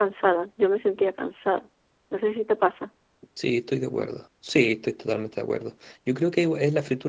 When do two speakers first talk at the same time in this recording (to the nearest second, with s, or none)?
none